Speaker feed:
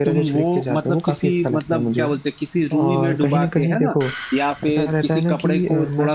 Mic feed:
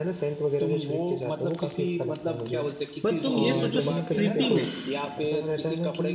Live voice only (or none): पर तुम ये सोचो सिटी में